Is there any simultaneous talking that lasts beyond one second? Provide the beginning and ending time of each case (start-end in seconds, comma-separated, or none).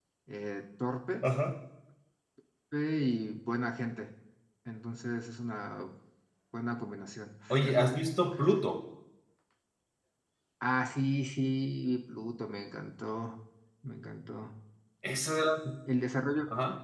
none